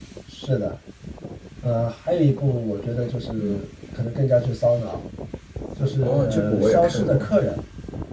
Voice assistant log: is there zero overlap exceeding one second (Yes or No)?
No